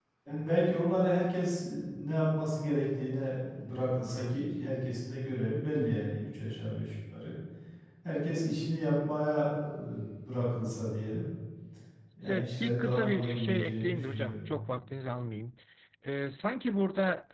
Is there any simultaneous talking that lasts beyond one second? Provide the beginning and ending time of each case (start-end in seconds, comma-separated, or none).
12.2-14.5